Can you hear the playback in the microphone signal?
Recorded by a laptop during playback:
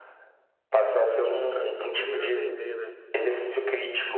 Yes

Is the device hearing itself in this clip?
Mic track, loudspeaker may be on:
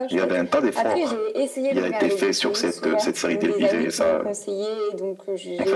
Yes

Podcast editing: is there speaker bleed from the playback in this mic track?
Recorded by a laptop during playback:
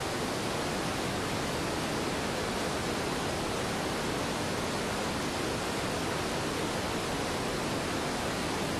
No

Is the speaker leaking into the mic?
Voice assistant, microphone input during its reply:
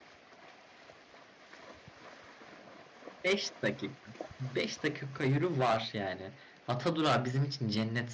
No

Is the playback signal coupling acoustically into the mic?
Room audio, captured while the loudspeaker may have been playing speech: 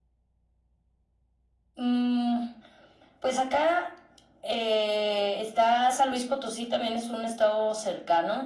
Yes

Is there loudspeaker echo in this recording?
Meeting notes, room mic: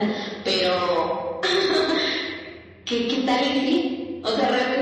Yes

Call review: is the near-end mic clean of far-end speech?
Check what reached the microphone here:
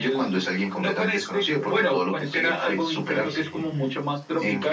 No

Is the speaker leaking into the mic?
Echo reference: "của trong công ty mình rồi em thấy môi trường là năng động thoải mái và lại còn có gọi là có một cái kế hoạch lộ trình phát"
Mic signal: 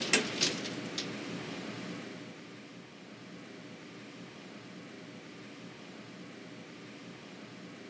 No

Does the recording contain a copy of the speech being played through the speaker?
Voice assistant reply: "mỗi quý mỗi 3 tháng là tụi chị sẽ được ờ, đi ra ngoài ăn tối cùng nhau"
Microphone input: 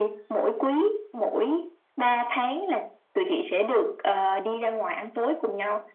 Yes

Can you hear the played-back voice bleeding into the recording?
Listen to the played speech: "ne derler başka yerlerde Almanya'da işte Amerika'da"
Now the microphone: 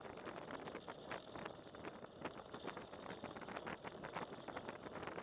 No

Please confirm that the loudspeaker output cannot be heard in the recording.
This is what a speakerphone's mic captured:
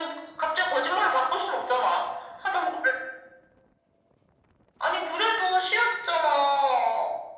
No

